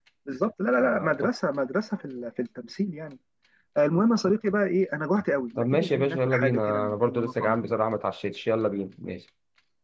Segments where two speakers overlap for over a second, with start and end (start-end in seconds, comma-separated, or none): 5.6-7.7